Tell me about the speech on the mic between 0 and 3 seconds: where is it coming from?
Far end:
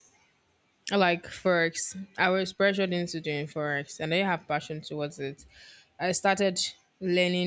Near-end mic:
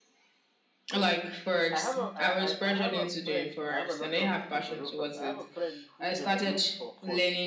both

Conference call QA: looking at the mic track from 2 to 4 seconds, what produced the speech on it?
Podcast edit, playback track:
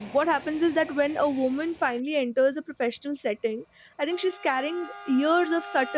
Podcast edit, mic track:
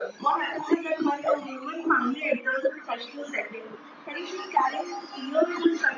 echo only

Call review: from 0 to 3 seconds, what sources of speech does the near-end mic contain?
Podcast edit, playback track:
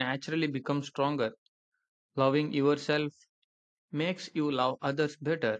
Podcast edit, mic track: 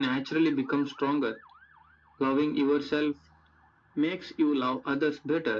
echo only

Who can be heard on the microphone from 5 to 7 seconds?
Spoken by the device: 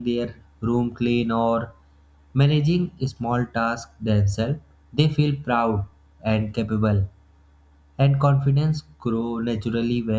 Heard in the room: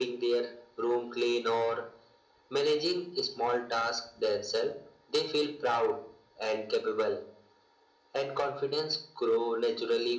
echo only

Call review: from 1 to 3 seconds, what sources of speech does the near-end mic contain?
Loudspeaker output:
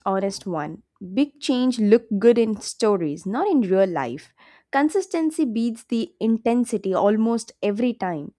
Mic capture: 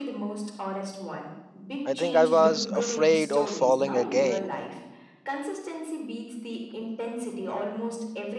both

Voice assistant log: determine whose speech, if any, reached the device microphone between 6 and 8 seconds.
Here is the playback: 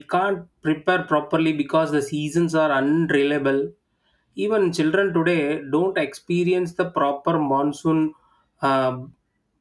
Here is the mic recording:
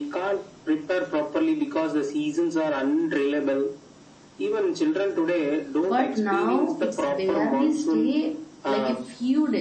both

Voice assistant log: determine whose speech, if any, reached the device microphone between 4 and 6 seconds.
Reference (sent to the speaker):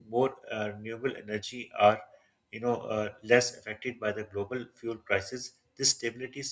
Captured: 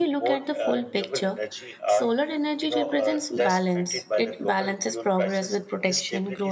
both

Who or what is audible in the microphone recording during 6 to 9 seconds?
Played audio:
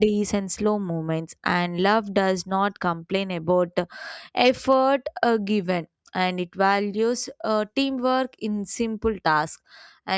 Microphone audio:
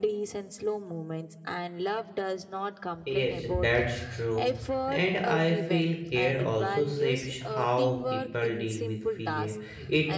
both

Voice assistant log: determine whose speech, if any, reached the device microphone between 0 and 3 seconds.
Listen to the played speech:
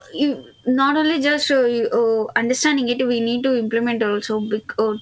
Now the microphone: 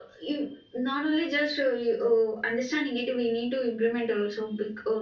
echo only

